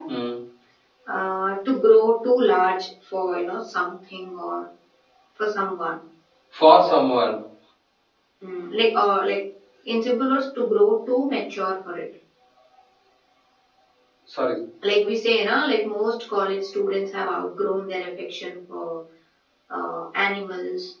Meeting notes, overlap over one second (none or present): none